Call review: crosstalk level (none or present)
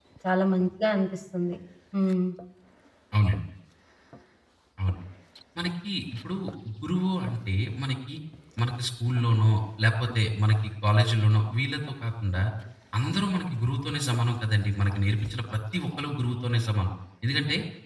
none